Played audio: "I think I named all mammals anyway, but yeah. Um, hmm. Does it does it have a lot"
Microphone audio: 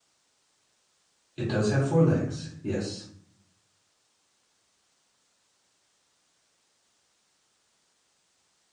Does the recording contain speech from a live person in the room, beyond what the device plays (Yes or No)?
Yes